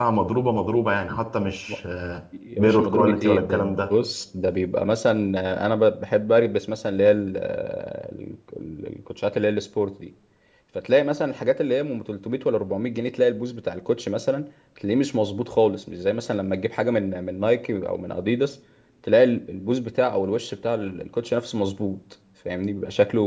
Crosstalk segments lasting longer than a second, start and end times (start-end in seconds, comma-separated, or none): 2.6-3.9